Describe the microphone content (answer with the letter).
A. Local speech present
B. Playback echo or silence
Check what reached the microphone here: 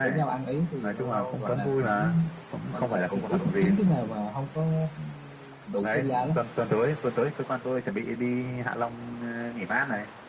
B